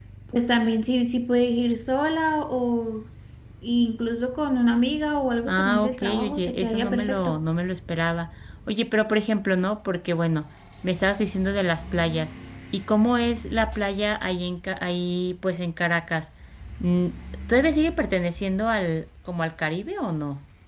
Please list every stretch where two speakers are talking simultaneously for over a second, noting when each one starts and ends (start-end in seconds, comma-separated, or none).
5.5-7.4